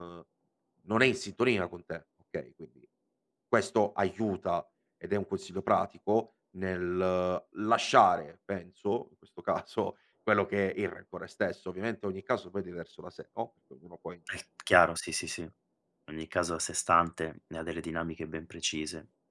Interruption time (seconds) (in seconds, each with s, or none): none